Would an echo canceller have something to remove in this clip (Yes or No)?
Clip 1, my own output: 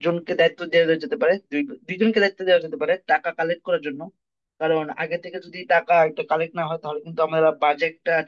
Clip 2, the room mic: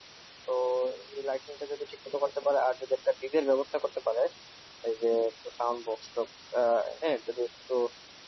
No